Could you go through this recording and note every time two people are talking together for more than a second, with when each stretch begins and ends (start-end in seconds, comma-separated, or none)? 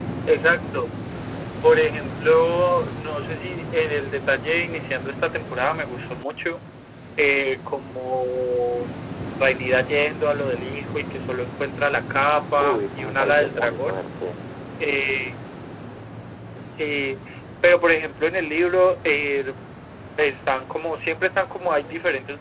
12.6-14.0